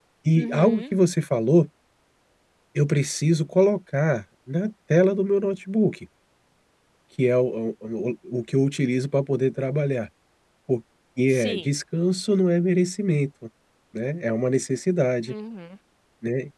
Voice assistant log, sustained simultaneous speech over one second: none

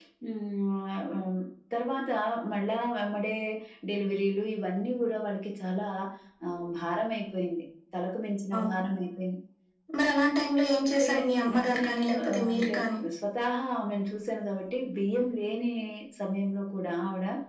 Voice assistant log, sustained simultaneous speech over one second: present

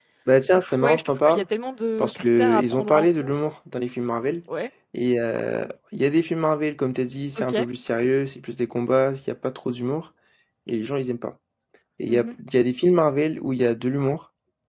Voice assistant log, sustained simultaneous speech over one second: present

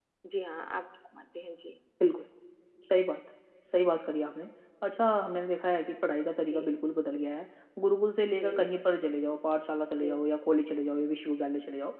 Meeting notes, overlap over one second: none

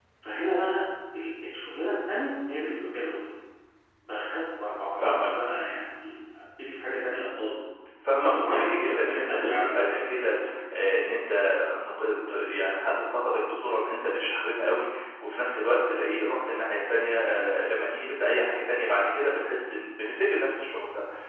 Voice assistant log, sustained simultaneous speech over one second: present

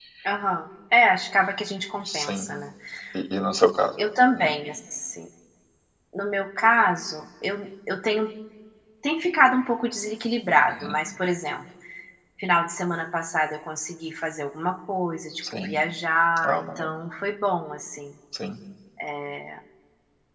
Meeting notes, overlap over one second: none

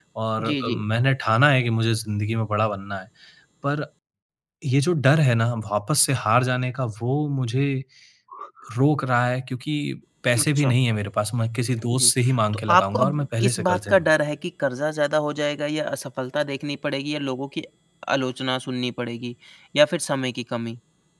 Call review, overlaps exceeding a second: present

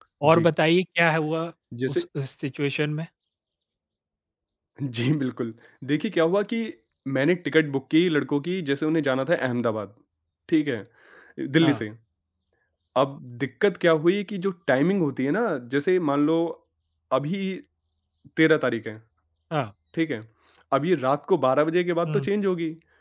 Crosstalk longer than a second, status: none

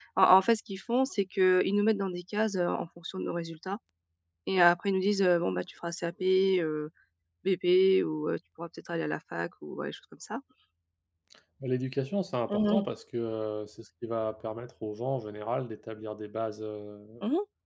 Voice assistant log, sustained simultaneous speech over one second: none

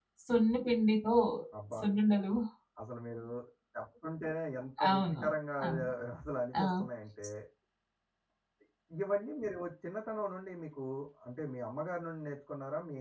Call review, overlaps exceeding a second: none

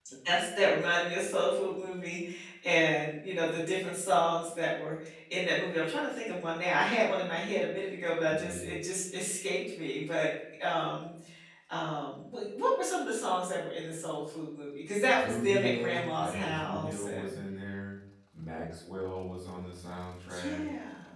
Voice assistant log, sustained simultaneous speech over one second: present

